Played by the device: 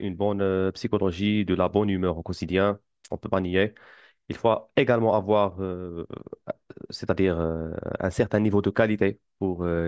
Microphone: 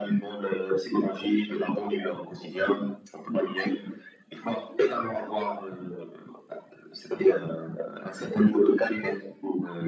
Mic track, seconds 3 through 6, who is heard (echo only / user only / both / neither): echo only